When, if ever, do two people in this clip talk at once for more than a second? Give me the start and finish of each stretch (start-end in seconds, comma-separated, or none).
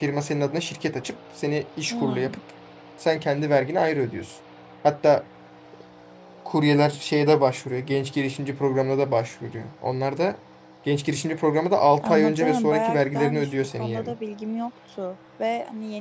12.0-14.1